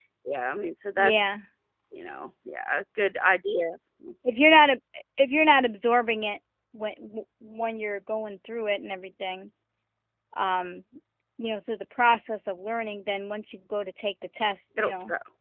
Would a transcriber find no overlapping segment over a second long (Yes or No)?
Yes